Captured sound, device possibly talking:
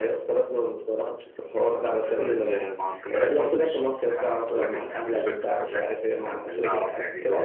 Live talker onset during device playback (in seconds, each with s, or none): 1.7 s